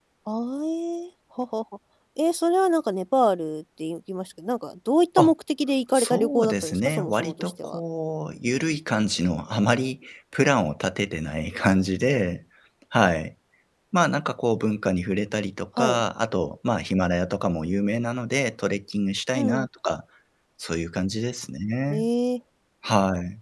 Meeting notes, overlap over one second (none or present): present